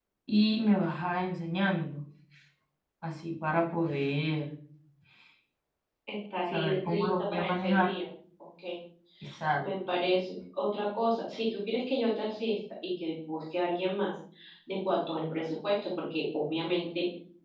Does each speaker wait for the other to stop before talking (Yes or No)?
No